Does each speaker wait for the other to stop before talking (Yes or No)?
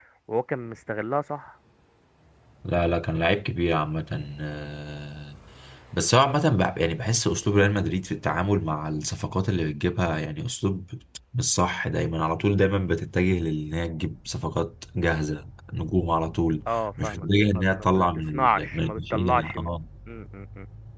No